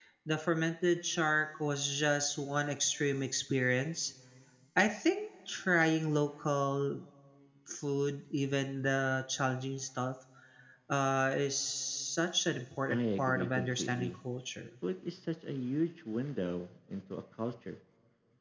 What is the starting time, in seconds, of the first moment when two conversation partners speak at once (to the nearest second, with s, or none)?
13 s